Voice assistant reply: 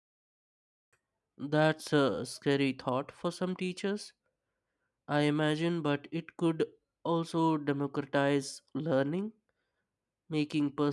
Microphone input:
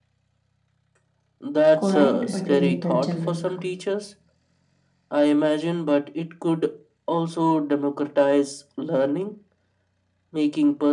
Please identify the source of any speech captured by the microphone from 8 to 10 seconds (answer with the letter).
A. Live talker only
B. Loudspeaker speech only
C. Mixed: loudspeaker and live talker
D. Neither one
B